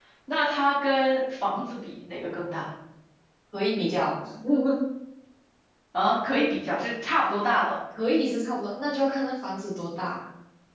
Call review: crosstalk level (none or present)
none